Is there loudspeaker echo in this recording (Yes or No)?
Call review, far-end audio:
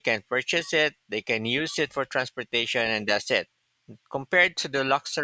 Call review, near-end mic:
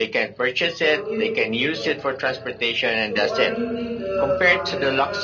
Yes